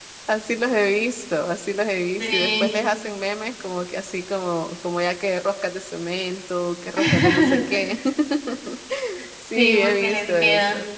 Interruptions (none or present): present